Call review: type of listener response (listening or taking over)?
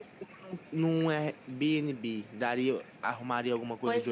taking over